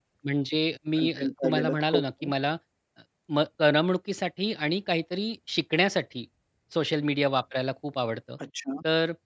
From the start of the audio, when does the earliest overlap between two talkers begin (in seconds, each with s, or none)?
1.0 s